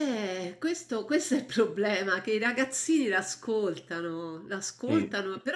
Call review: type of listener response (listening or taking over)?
listening